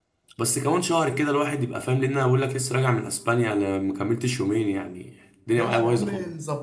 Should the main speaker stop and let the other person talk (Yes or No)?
Yes